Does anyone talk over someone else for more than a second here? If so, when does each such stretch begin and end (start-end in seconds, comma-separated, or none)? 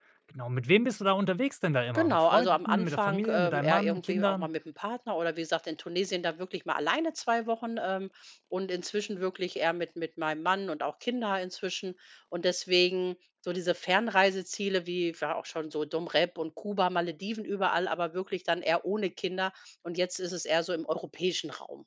1.9-4.5